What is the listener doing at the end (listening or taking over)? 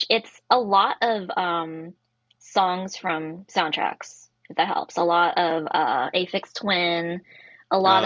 listening